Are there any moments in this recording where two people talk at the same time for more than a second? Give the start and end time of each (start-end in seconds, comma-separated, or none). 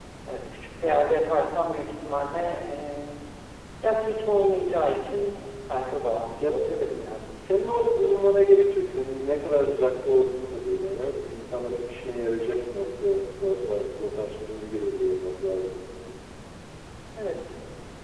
none